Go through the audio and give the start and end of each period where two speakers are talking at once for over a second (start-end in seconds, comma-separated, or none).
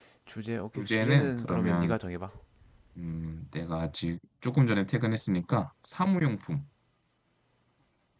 0.8-1.9